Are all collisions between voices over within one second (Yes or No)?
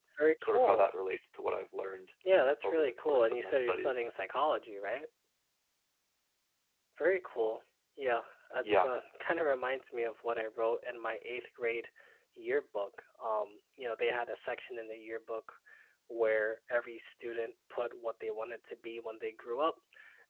No